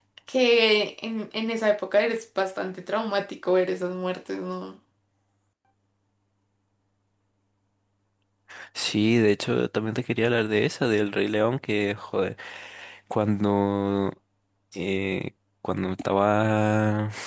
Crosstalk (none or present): none